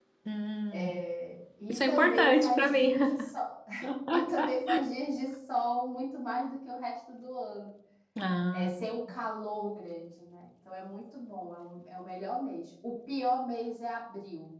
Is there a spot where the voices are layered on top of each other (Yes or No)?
Yes